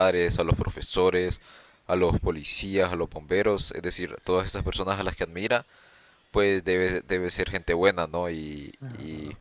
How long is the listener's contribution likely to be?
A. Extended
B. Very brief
B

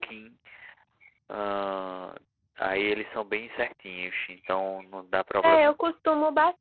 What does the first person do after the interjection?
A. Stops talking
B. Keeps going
A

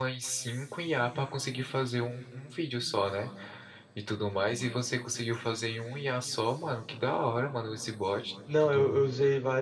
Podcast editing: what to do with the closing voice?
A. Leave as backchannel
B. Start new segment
B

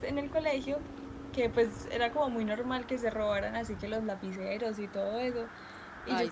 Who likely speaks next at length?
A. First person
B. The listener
A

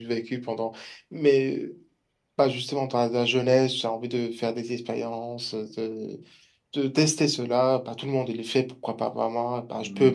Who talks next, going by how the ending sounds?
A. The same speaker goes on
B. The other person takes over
A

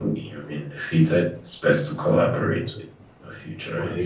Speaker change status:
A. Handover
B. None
A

